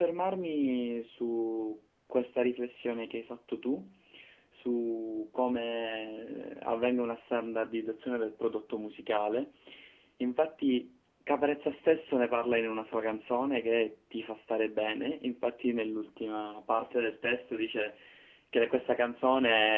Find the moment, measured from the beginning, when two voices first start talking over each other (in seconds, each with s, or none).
none